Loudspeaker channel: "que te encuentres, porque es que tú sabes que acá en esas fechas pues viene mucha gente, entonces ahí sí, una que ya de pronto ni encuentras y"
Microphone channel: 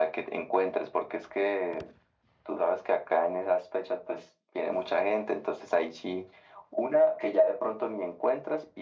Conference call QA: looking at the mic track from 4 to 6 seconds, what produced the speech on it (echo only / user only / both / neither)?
echo only